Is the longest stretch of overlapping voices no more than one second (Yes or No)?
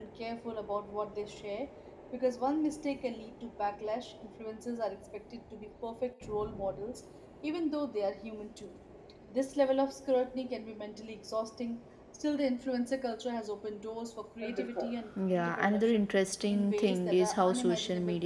No